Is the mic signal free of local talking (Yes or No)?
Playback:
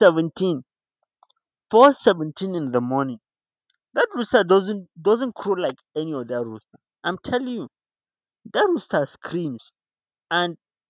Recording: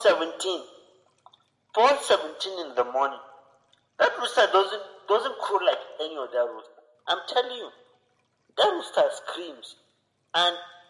Yes